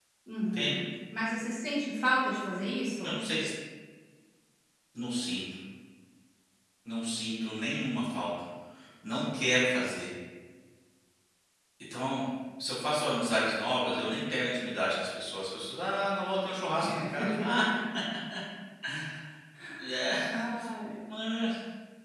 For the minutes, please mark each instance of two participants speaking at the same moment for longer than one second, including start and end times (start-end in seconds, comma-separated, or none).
none